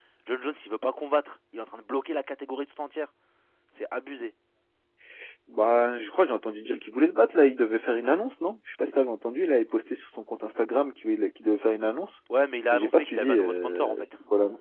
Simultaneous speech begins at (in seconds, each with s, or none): 12.7 s